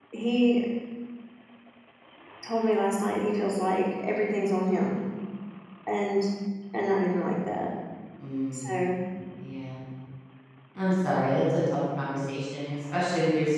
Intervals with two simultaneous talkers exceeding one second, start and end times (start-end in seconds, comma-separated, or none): none